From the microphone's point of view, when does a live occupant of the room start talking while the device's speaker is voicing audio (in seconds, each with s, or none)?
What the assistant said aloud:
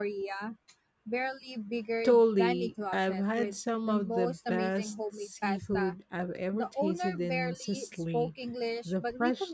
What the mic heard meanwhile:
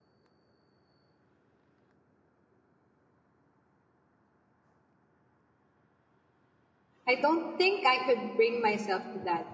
7.0 s